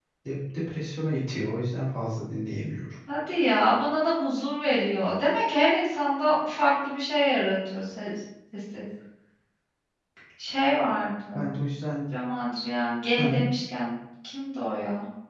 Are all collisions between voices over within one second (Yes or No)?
Yes